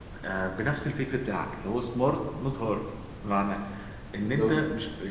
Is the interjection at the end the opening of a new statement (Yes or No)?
No